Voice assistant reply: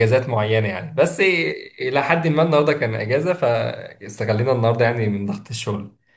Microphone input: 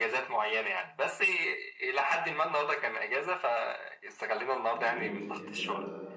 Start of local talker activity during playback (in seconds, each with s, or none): 4.7 s